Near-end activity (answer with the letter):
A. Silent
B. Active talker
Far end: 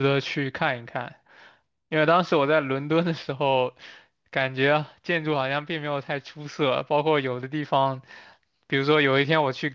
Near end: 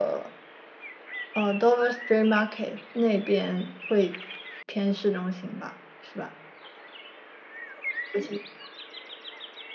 B